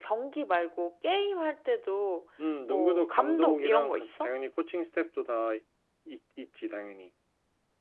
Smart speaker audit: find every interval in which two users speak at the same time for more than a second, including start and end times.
2.7-4.3

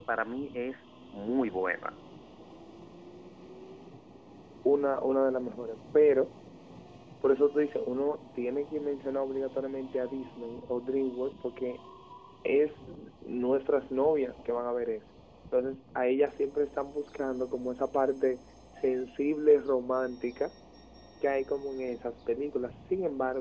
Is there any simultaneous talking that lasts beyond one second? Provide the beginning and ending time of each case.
none

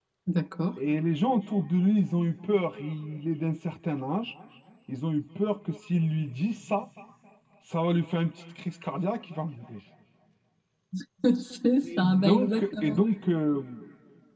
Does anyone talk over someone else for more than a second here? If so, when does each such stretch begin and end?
11.7-13.0

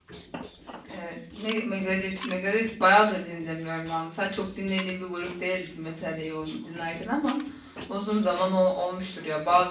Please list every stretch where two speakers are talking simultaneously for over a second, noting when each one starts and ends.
none

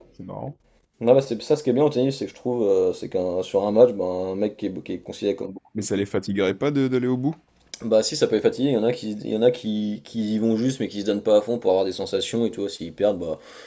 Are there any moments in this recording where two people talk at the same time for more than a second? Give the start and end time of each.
none

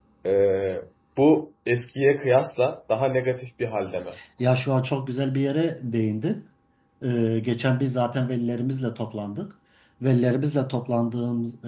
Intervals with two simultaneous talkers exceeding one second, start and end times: none

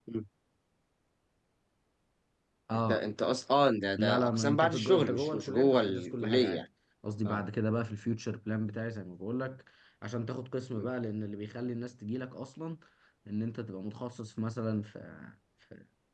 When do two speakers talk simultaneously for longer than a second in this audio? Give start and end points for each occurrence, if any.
4.0-6.7

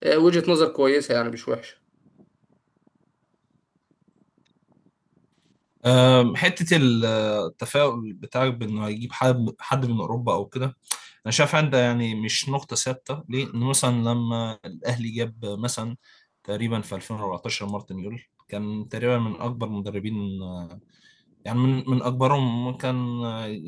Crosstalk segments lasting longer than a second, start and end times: none

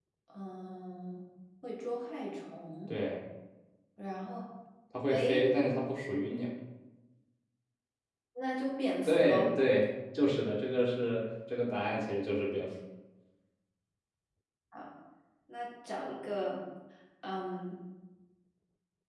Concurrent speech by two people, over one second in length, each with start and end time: none

